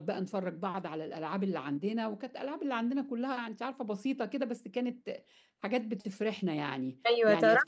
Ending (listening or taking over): taking over